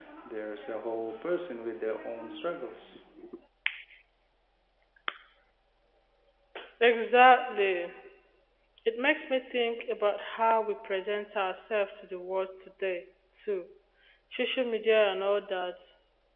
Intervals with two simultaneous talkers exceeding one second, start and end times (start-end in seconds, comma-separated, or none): none